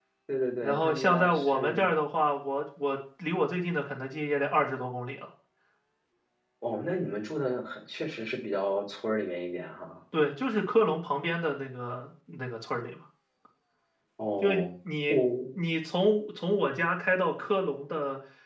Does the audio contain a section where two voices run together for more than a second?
Yes, from 0.6 s

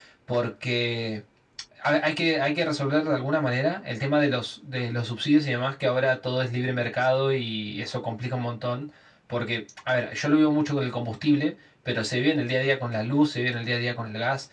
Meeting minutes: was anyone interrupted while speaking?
No

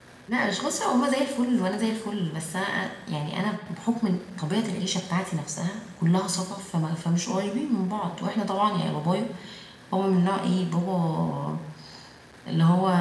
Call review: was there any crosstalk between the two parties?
No

